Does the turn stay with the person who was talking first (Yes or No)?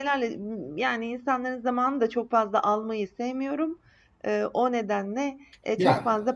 Yes